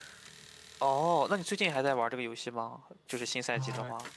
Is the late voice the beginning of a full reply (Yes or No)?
Yes